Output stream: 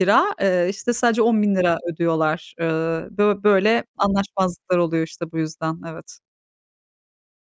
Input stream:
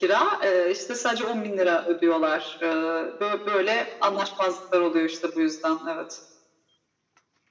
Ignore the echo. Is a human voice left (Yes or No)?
No